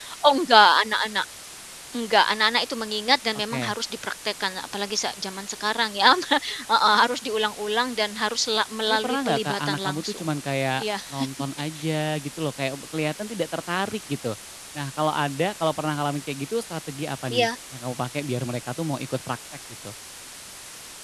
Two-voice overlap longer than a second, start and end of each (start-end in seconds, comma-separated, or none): 8.9-10.2